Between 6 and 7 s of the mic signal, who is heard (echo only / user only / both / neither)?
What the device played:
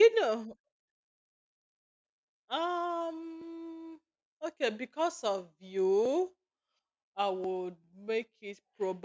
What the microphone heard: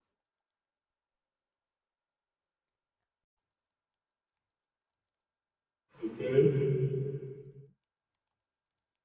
user only